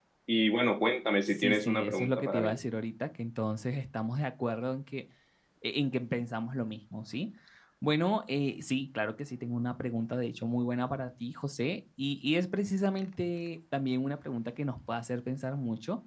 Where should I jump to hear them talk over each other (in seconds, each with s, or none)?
1.2 s